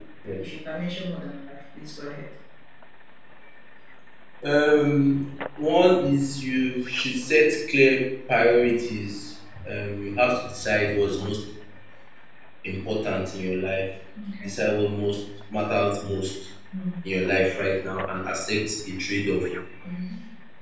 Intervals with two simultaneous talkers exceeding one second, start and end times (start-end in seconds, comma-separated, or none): none